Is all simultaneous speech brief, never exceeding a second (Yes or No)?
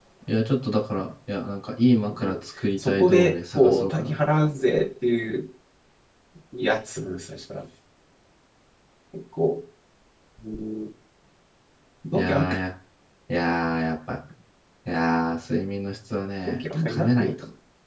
No